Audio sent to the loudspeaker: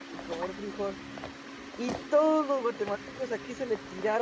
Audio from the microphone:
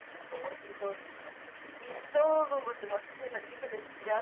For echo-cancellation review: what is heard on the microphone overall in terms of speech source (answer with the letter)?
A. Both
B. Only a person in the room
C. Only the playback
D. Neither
C